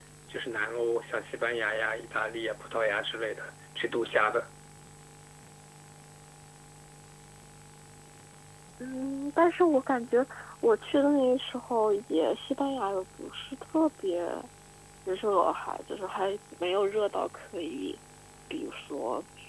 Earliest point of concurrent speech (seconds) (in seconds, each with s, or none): none